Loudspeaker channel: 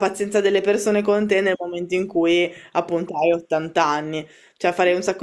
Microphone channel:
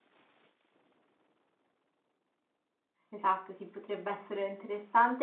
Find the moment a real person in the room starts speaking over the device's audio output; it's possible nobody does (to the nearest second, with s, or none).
3 s